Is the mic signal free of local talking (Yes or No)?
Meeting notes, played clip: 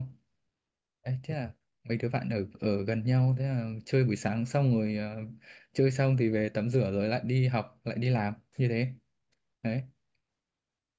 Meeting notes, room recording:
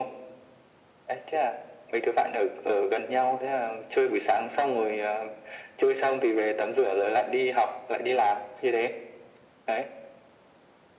Yes